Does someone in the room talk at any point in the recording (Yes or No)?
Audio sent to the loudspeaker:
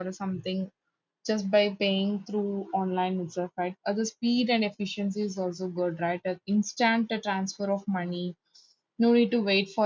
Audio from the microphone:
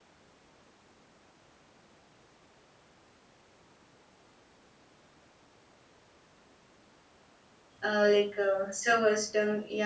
Yes